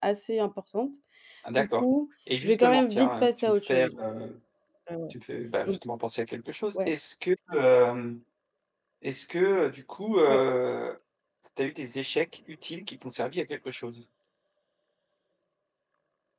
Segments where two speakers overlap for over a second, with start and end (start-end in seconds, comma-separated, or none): 2.4-4.0